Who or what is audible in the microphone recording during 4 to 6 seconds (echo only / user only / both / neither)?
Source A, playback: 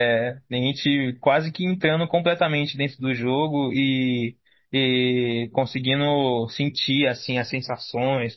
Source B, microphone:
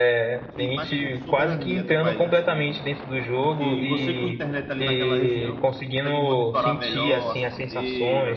both